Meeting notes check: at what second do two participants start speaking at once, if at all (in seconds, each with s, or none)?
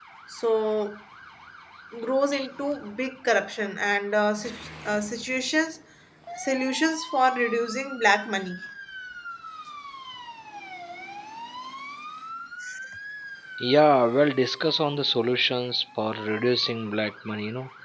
none